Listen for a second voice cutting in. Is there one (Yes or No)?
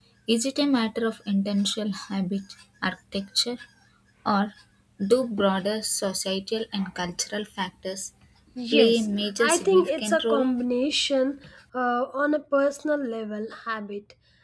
Yes